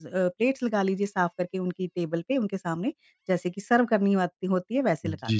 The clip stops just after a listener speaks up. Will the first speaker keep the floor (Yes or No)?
No